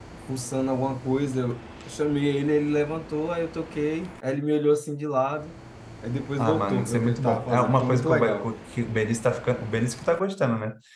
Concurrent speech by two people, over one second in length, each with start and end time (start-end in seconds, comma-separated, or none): 6.4-8.5